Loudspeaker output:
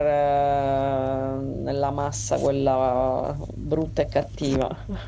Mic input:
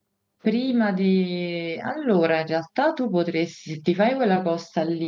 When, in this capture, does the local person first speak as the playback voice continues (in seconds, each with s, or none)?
0.4 s